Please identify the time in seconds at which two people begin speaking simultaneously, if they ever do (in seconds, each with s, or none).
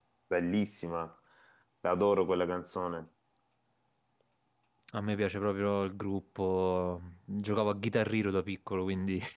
none